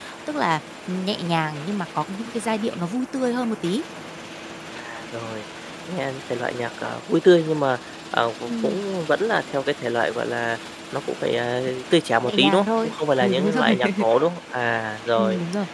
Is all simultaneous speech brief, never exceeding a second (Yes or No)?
No